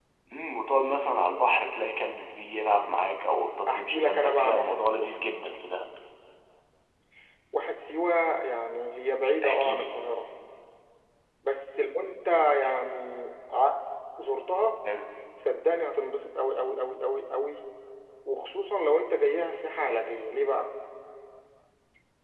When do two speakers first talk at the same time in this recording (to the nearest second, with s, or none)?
4 s